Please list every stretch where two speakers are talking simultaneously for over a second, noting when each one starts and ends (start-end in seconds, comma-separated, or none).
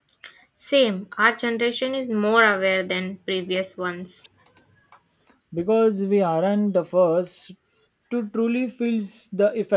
none